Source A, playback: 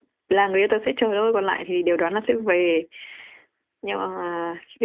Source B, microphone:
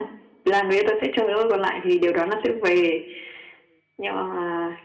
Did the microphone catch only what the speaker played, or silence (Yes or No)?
Yes